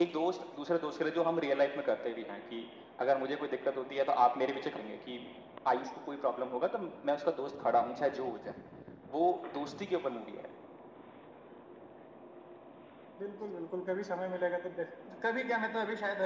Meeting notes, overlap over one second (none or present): none